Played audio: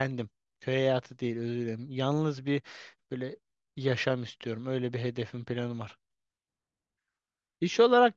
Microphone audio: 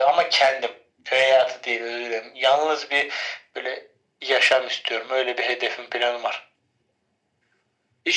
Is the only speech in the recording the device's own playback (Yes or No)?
Yes